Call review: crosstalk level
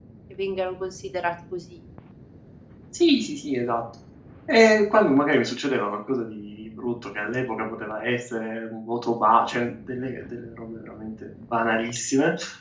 none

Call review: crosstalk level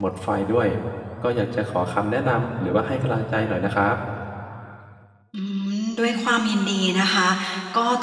none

